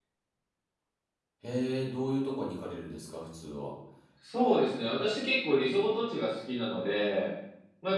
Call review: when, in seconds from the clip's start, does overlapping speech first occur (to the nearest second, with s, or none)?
none